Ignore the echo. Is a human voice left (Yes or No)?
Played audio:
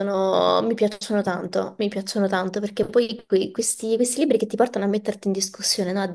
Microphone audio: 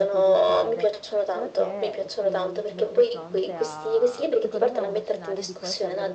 Yes